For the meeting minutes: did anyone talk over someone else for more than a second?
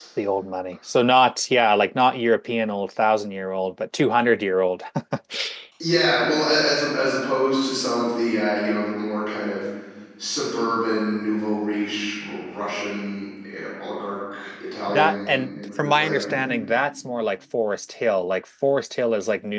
Yes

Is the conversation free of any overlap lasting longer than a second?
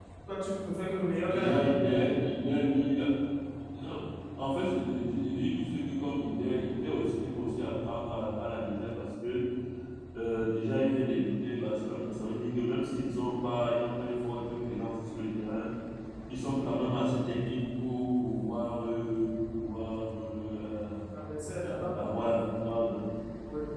No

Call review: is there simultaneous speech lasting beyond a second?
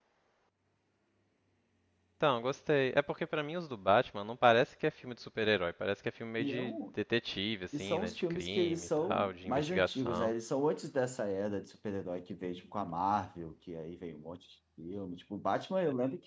Yes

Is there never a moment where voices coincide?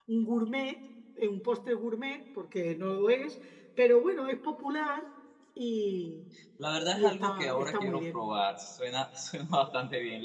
No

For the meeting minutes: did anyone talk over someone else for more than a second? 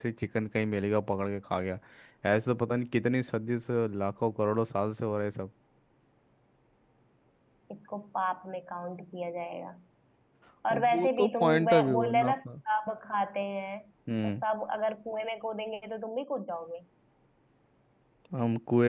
Yes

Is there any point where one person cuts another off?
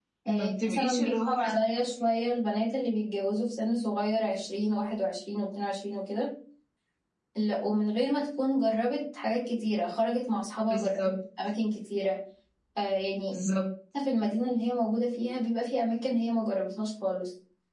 Yes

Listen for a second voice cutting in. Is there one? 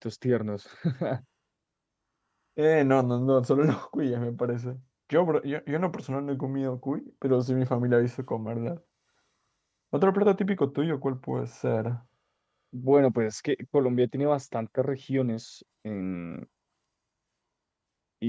No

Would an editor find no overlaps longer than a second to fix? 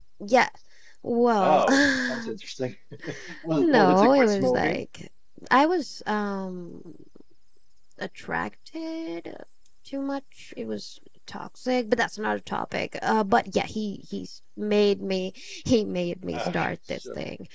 No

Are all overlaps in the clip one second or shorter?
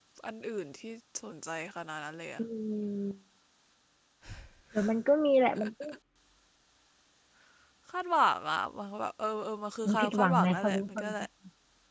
No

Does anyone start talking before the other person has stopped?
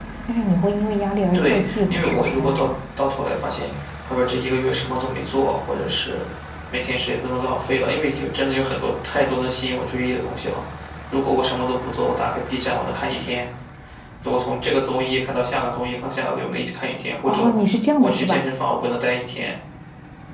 Yes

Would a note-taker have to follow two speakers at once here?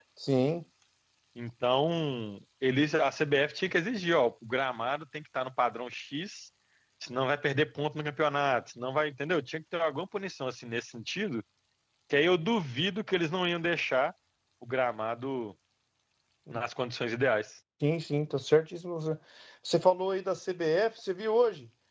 No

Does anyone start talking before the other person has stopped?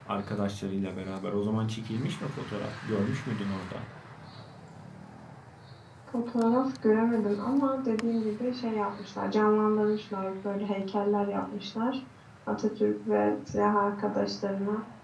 No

